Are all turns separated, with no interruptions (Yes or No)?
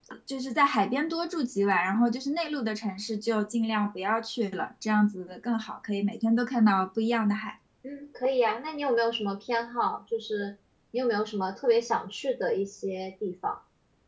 Yes